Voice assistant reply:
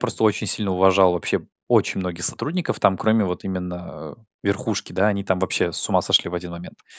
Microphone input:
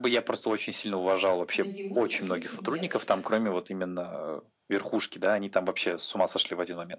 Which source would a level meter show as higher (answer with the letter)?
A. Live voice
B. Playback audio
B